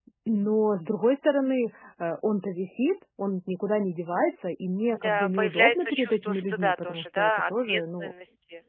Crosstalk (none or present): present